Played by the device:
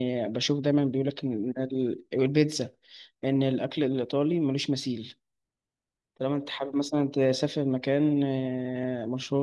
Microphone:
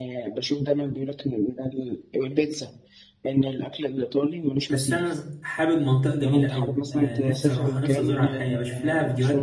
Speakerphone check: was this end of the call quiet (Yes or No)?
No